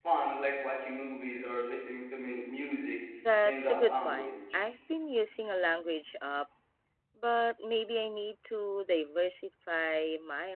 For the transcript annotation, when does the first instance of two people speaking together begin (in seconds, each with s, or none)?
3.5 s